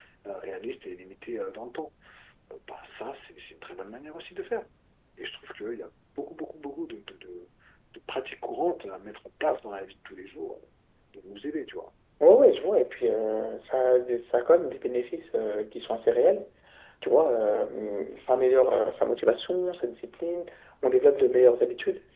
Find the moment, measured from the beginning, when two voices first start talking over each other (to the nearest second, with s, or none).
none